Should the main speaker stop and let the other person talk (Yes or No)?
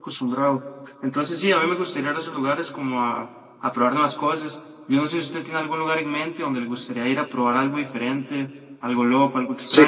Yes